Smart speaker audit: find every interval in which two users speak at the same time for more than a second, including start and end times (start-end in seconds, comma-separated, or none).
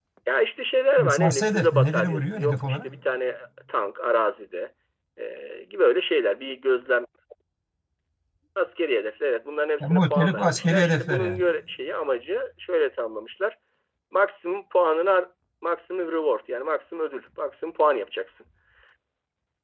1.0-2.9, 9.8-11.4